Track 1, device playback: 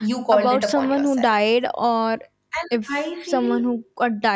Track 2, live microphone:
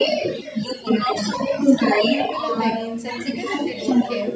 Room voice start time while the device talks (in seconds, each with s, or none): 2.0 s